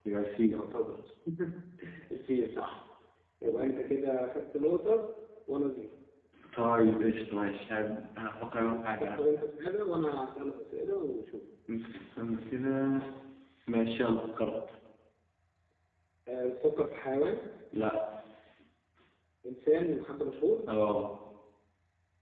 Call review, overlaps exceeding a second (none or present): none